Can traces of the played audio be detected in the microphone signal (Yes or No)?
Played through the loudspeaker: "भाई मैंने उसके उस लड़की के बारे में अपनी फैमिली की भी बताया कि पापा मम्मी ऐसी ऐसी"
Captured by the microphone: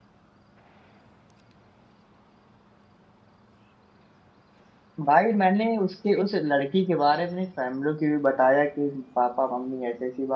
Yes